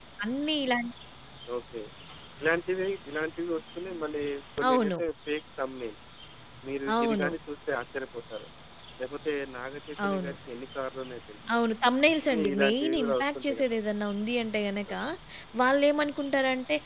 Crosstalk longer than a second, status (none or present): present